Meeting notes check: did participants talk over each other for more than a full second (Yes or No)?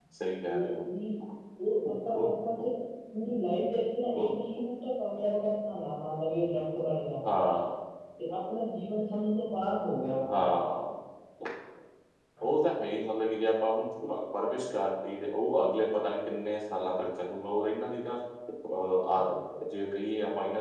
No